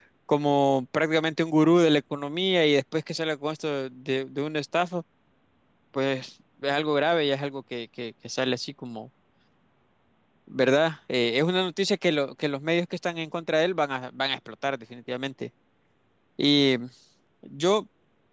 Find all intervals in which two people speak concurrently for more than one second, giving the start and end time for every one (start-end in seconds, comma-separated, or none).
none